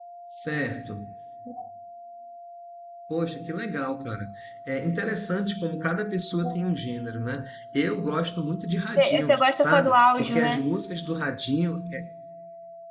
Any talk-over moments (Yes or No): Yes